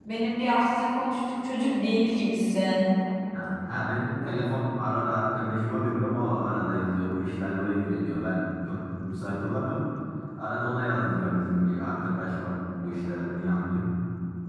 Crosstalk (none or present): none